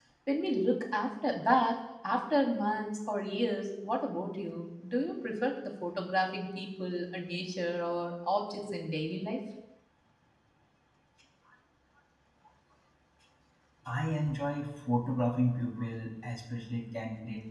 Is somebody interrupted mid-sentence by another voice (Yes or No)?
No